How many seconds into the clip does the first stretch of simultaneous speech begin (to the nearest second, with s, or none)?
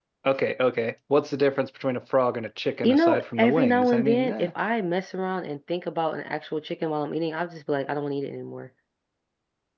3 s